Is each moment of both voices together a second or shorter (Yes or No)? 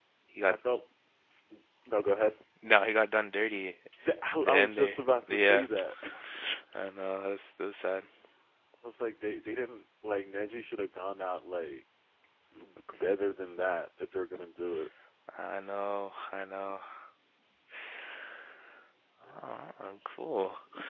No